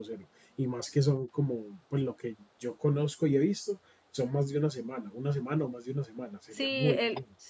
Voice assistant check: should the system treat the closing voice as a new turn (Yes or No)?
Yes